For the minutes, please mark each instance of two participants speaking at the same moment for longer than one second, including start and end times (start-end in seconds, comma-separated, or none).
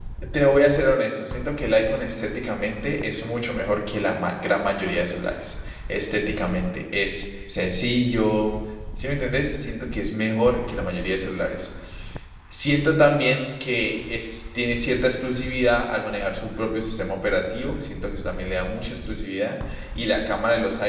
none